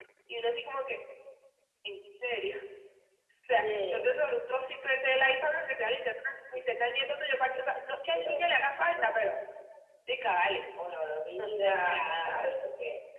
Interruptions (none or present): present